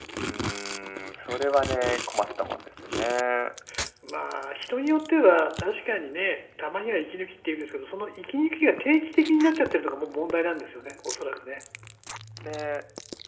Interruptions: none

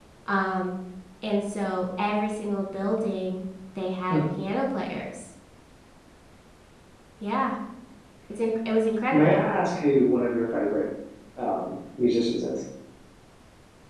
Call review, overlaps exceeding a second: none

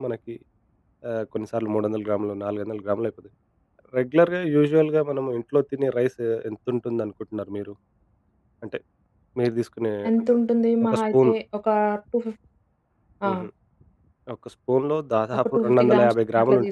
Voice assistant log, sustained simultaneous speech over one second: present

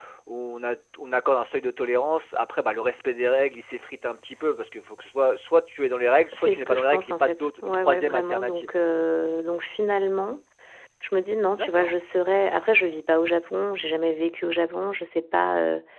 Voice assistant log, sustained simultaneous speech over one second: present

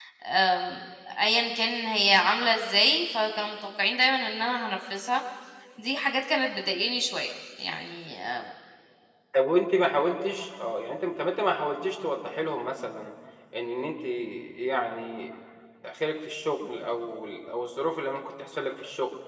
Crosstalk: none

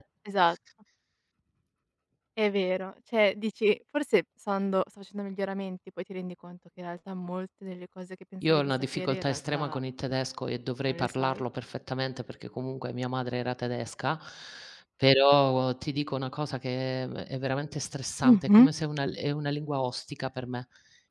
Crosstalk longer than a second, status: present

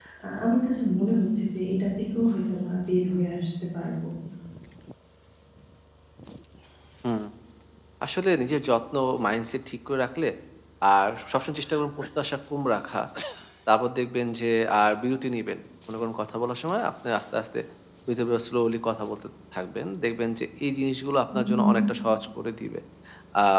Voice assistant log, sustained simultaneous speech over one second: none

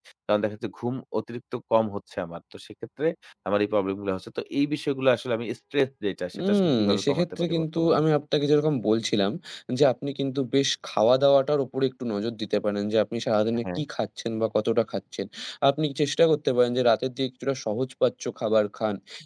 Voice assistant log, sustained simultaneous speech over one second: present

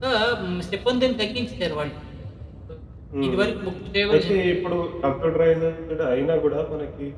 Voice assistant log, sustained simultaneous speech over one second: none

